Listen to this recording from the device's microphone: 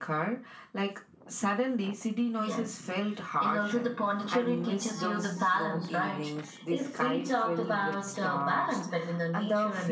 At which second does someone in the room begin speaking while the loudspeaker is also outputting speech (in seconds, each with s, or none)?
none